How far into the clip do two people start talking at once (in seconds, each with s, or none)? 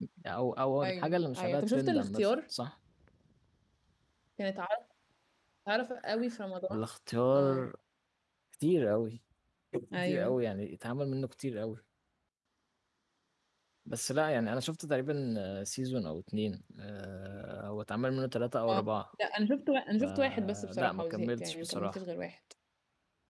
0.8 s